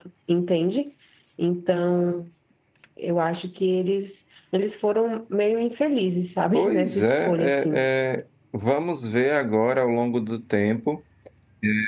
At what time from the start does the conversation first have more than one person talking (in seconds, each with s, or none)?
6.5 s